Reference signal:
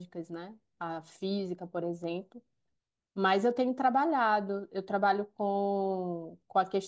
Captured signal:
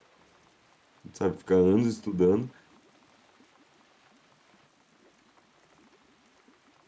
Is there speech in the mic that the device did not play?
Yes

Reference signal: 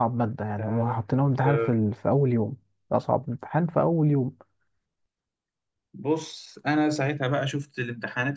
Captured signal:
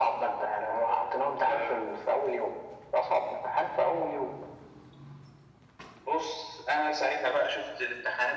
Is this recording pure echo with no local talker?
Yes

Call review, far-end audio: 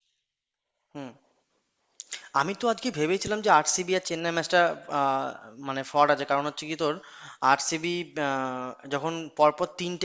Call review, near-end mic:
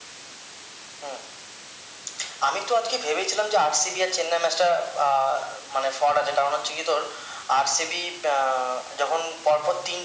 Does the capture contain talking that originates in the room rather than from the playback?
No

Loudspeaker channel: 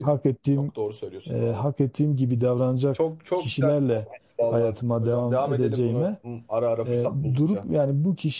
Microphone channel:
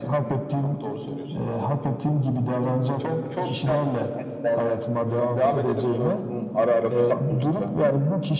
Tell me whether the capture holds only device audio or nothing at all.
Yes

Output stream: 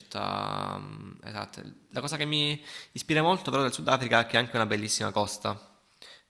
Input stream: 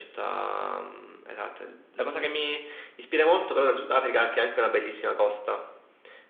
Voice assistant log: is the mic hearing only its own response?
Yes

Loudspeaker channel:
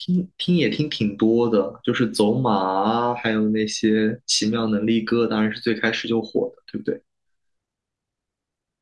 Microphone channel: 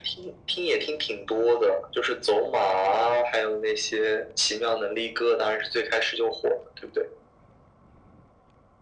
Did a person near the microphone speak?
No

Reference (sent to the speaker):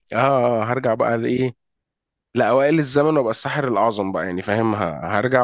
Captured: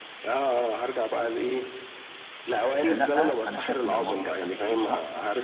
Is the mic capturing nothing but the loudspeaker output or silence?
No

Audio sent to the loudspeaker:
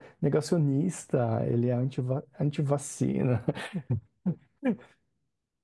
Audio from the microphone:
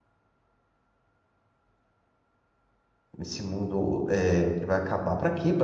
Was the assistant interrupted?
Yes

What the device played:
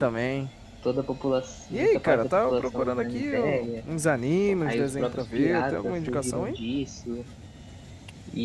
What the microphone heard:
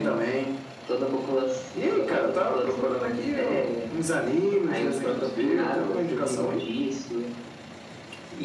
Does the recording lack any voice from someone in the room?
Yes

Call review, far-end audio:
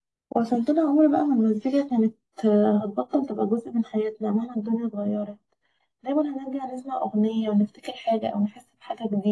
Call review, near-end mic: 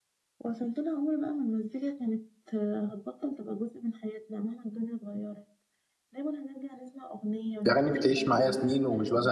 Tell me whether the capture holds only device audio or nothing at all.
No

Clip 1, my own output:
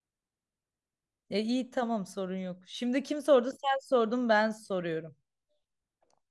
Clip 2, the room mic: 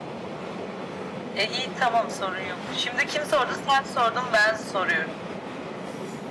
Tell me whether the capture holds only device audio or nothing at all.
Yes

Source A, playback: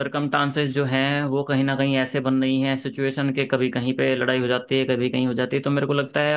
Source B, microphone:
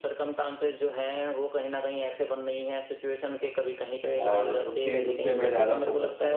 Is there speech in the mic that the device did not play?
Yes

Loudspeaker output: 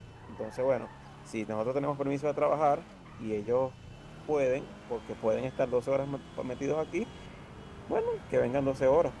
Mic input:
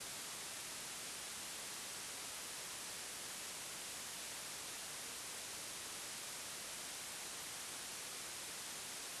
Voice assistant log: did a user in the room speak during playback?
No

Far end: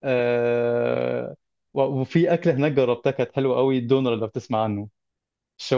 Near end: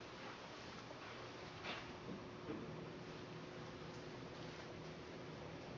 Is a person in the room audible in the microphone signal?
No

